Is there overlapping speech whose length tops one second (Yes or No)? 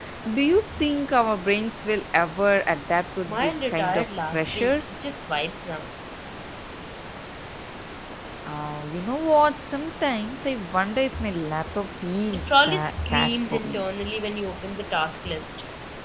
Yes